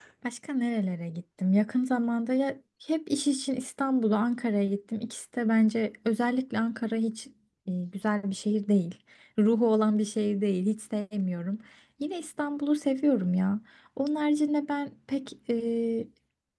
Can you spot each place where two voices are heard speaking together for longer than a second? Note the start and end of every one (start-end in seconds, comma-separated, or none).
none